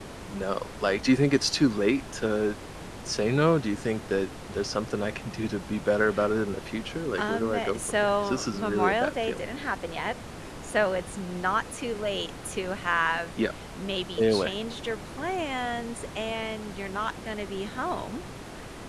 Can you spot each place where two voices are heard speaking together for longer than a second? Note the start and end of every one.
7.2-9.4

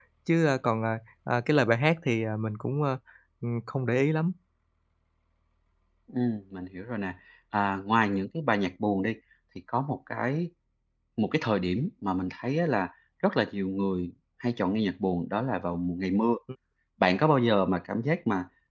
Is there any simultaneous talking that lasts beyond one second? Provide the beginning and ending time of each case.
none

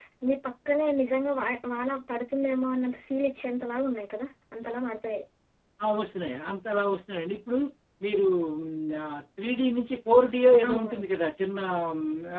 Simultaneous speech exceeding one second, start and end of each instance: none

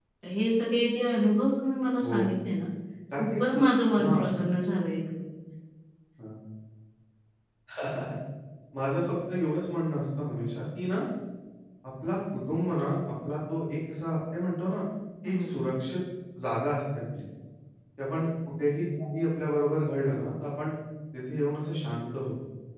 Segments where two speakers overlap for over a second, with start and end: none

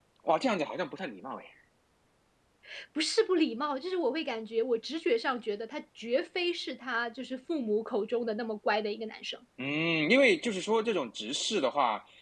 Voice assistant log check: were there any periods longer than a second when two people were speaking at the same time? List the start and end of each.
none

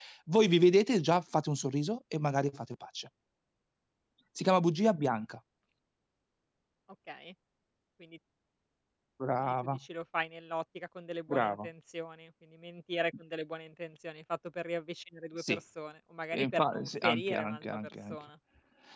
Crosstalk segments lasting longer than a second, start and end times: 16.3-18.1

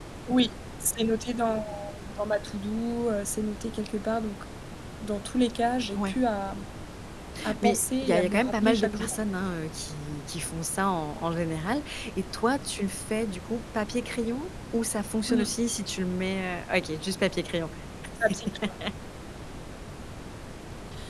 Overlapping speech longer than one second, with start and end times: 7.6-9.2

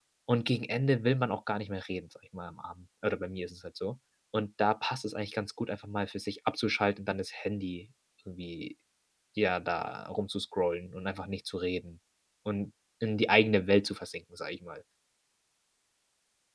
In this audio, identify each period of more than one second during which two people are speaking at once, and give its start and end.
none

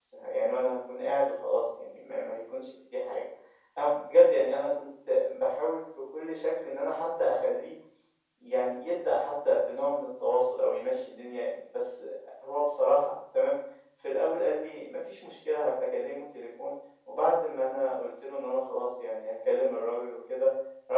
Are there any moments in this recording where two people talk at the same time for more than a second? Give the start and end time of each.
none

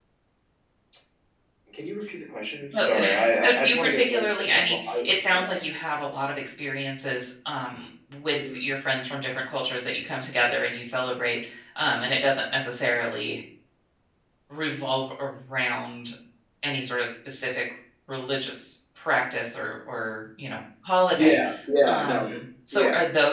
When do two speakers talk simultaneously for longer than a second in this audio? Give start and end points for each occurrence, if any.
2.8-5.5

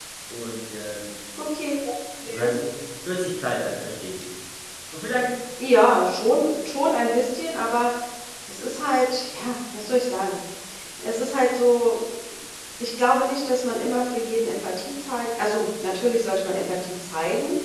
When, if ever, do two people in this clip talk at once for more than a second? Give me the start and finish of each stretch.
none

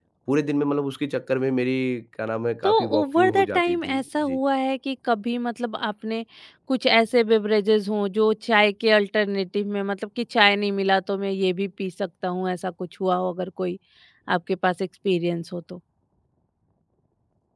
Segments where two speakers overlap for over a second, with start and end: 2.6-4.4

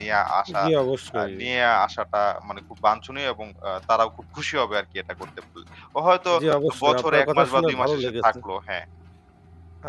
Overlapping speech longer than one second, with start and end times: 6.8-8.2

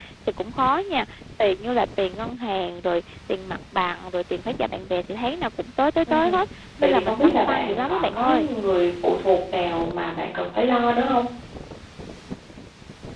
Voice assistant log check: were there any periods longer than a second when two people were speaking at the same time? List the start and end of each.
6.8-8.5

